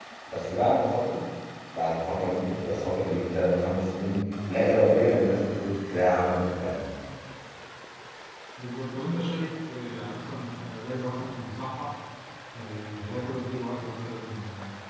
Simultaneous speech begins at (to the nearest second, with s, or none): none